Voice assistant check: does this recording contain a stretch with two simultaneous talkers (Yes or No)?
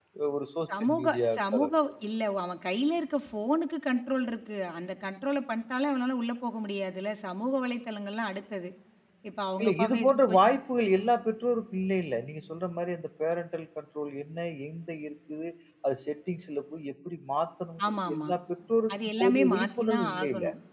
Yes